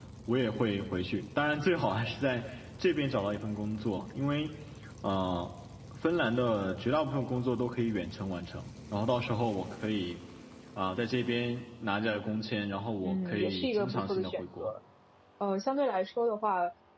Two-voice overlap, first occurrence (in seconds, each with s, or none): 13.0 s